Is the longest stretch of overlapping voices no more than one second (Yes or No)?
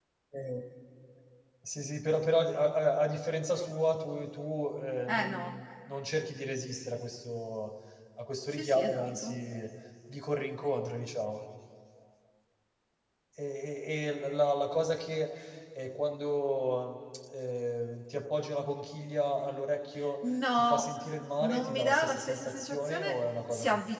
No